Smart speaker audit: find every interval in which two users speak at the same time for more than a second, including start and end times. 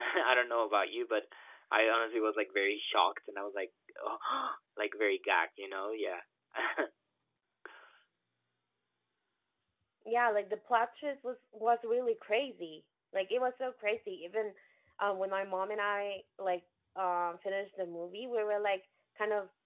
none

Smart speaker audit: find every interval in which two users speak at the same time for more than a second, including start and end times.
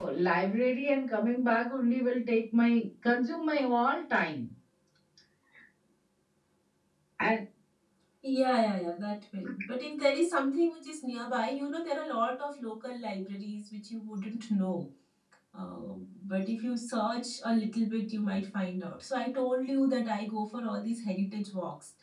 none

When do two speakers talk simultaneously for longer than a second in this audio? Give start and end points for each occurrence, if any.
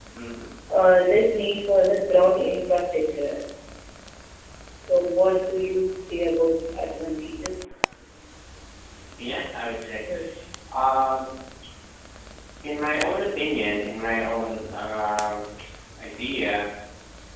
none

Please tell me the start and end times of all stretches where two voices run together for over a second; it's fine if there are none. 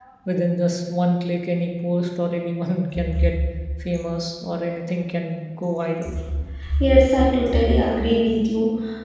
none

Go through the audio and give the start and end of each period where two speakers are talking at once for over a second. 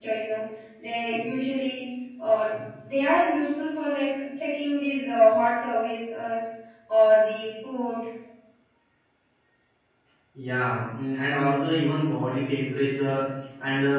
none

